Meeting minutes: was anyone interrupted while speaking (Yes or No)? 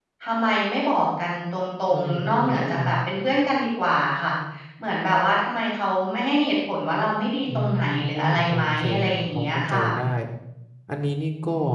Yes